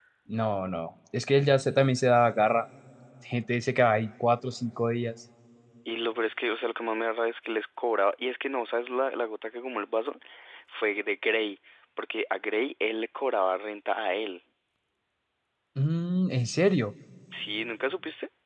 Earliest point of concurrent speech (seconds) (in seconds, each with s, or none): none